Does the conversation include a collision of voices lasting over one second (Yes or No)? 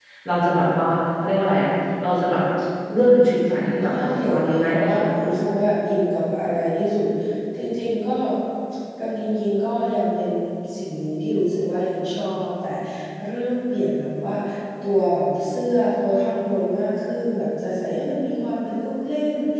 Yes